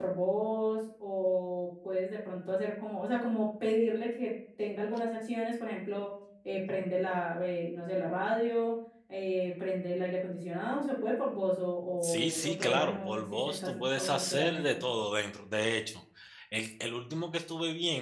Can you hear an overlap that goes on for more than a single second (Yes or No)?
Yes